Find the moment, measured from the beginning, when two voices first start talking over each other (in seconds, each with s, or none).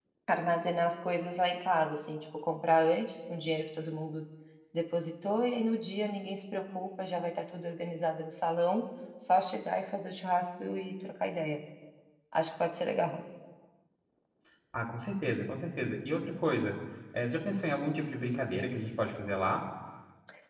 none